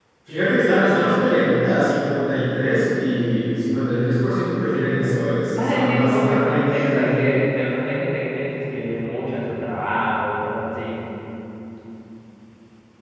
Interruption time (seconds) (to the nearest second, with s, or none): 6 s